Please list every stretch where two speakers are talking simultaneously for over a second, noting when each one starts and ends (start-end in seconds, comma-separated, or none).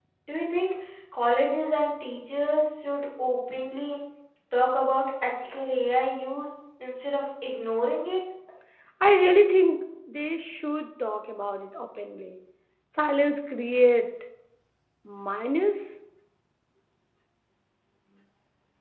none